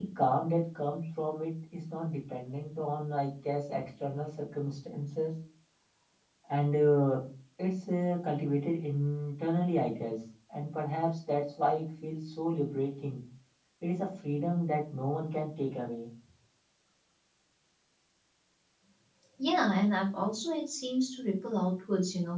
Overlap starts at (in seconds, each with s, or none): none